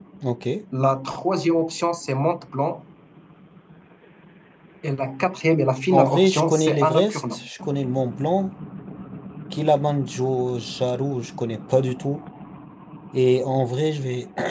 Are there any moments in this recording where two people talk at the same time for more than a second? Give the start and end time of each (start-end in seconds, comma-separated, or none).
5.9-7.4